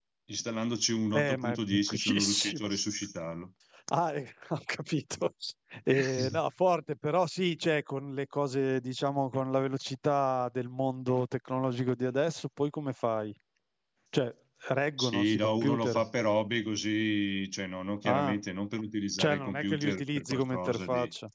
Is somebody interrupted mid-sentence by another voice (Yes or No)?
Yes